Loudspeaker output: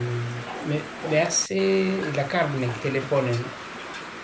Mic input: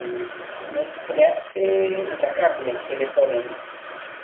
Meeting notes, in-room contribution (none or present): none